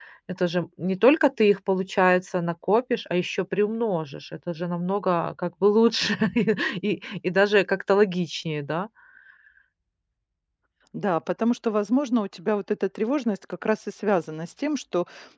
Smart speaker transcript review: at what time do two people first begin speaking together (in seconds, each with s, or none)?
none